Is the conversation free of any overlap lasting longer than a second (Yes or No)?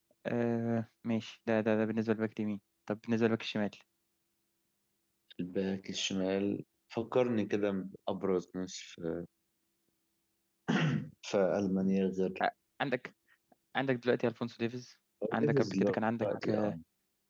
No